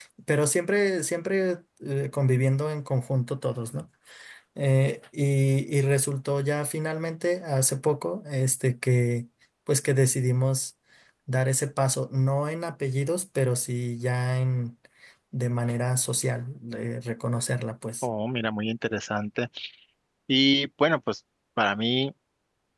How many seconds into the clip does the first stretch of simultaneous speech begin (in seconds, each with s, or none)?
none